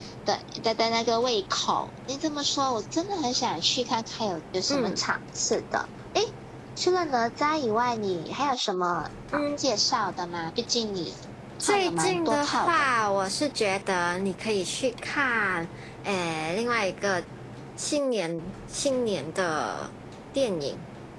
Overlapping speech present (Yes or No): Yes